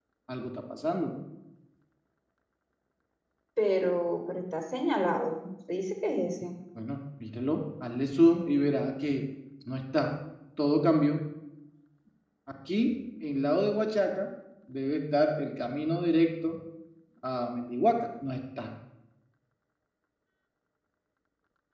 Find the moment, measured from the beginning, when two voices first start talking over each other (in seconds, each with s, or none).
none